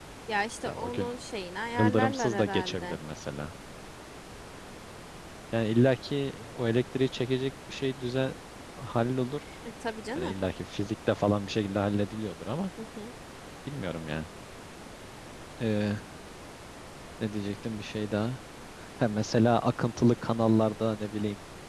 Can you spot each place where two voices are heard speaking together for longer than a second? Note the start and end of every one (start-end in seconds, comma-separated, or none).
1.8-3.0